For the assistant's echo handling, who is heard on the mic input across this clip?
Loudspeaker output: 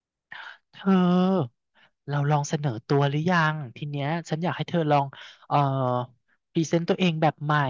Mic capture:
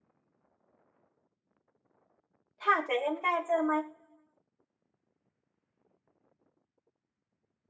user only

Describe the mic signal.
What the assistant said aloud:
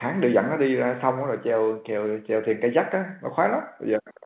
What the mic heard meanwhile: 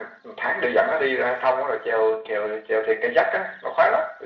echo only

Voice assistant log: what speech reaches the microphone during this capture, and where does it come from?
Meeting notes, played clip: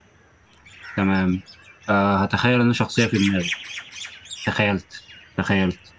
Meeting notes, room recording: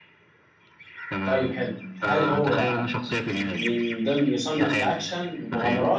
both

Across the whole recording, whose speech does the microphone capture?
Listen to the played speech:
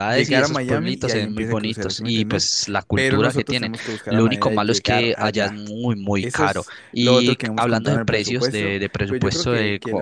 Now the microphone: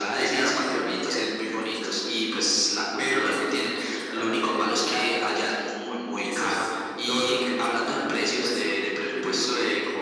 echo only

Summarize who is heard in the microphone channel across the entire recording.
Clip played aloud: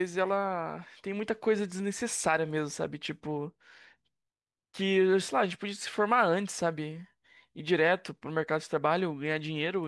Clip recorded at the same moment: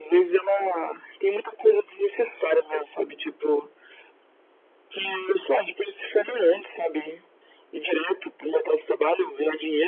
echo only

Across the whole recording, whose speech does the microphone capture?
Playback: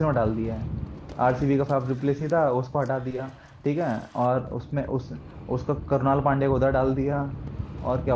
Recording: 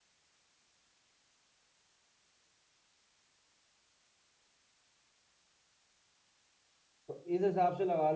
user only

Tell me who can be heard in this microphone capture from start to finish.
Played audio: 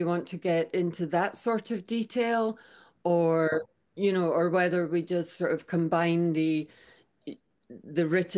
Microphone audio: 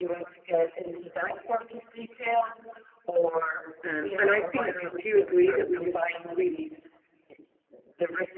both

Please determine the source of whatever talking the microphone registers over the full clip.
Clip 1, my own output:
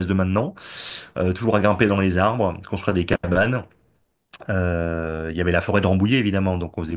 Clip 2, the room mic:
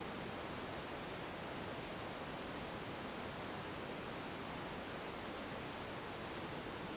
neither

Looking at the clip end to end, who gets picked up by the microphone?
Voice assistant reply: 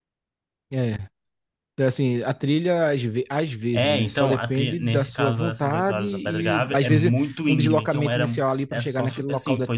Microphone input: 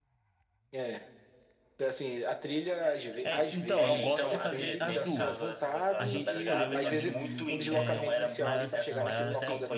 both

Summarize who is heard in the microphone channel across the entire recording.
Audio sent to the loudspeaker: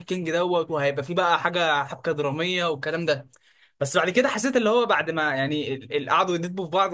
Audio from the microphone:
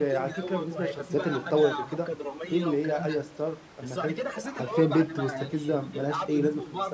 both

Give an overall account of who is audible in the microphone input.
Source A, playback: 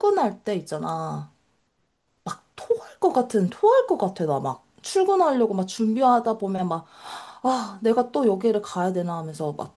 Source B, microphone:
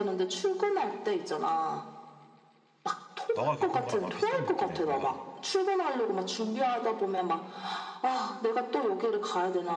both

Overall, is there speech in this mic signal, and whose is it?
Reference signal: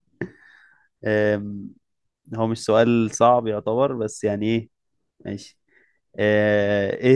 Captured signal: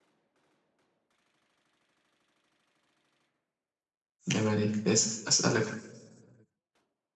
user only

